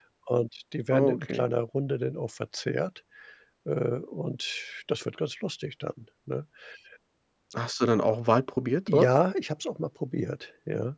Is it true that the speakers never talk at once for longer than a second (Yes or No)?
Yes